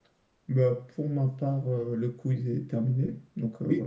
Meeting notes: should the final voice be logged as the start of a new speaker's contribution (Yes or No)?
Yes